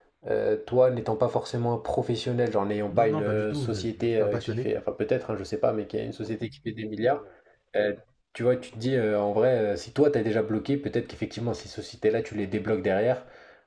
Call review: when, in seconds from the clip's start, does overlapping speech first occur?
3 s

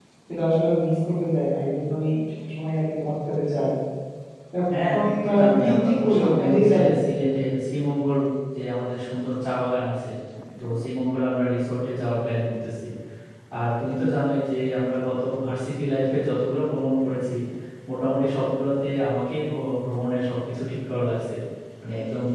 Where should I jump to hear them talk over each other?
5 s

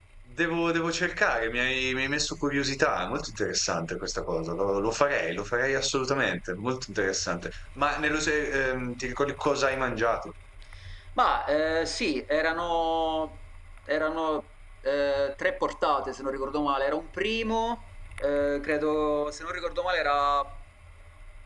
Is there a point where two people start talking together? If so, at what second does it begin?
none

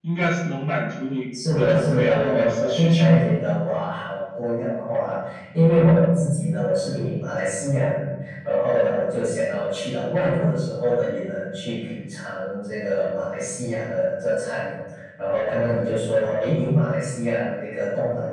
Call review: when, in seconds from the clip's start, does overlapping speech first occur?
1 s

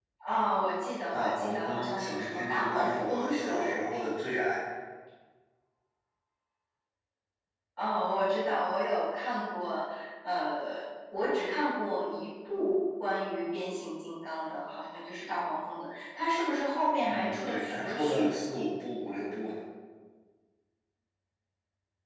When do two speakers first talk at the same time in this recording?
1 s

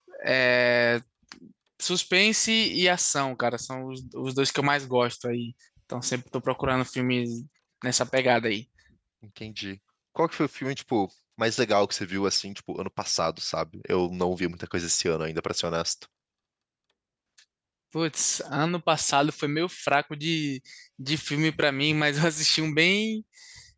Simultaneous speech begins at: none

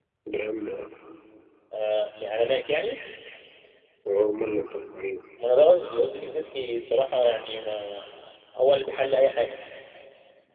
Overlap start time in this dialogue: none

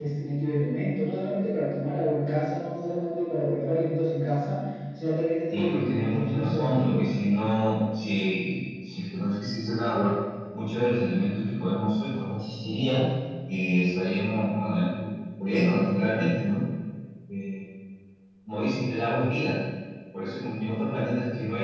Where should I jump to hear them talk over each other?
6 s

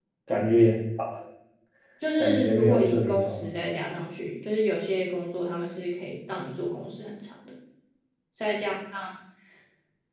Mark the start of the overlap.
2 s

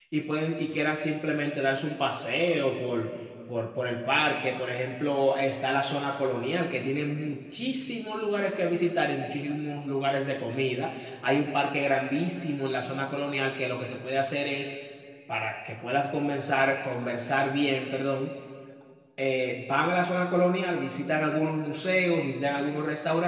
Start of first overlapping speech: none

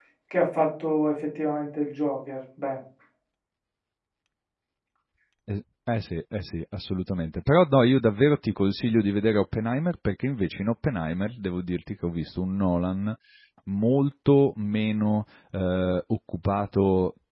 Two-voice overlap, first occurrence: none

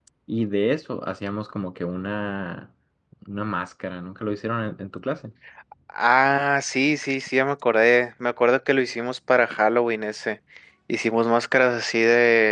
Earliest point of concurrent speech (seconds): none

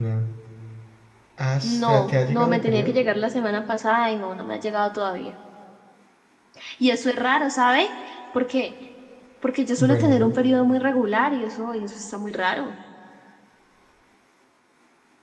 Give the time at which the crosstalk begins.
2 s

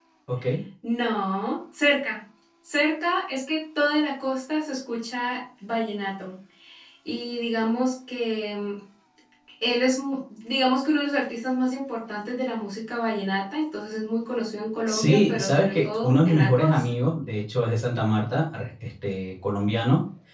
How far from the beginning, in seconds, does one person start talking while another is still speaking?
15 s

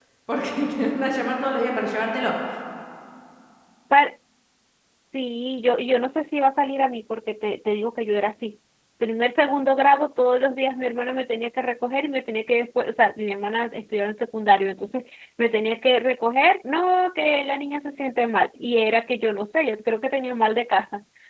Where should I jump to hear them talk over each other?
none

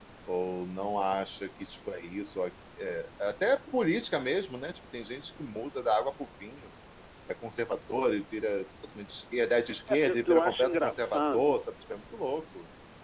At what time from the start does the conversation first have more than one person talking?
10 s

